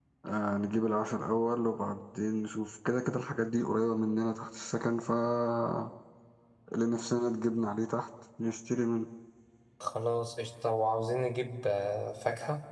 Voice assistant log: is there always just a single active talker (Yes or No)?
Yes